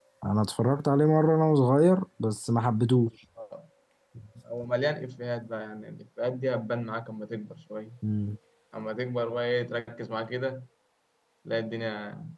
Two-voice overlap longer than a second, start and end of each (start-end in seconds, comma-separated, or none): none